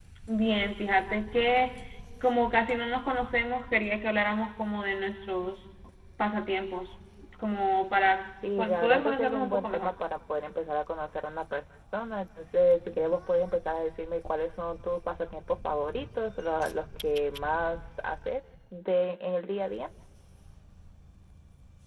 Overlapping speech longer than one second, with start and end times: 8.6-9.9

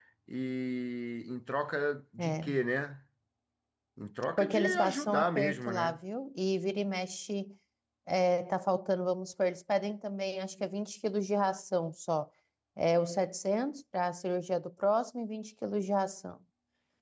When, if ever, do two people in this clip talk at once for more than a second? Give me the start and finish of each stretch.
4.4-6.0

